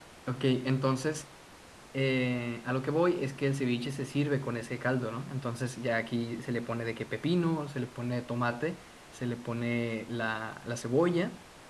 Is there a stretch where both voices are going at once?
No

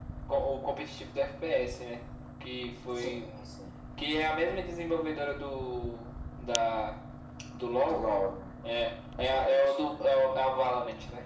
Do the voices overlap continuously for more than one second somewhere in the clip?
Yes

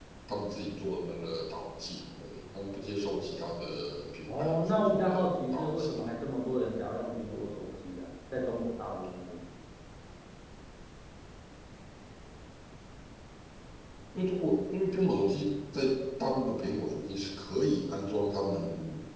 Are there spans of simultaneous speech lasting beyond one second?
Yes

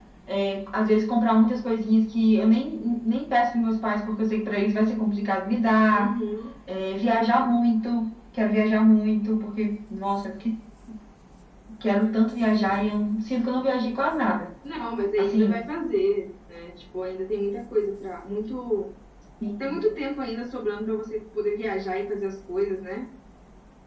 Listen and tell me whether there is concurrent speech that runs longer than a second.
No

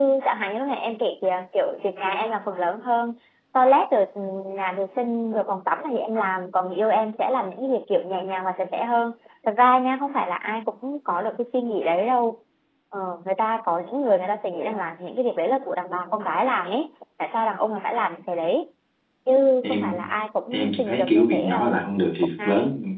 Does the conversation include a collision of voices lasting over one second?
Yes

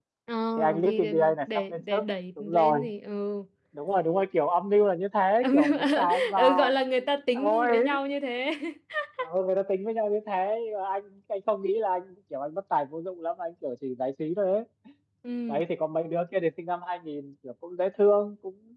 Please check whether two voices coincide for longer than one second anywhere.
Yes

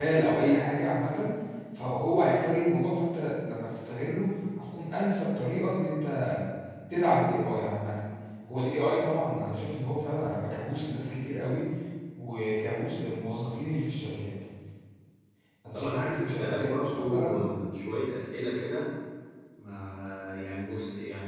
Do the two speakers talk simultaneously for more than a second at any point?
Yes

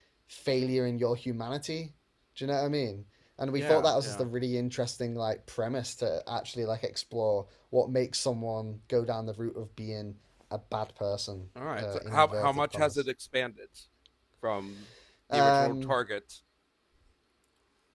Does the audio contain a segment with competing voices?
Yes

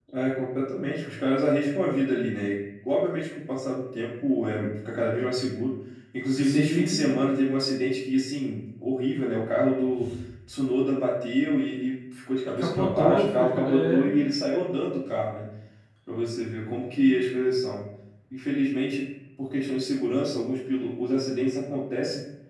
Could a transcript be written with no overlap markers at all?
No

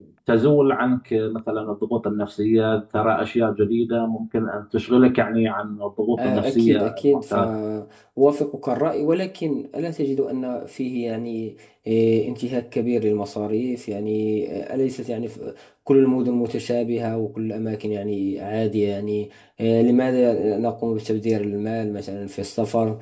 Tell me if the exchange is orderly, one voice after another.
No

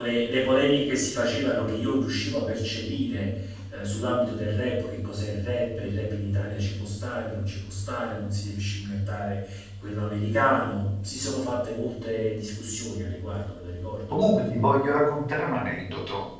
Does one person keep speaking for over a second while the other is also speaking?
No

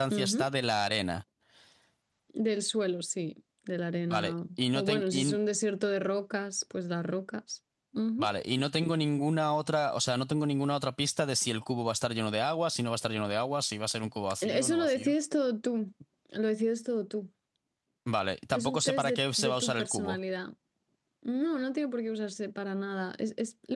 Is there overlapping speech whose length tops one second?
Yes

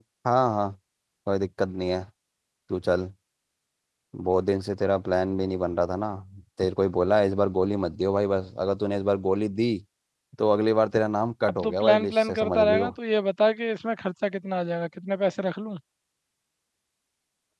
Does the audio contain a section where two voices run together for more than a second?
Yes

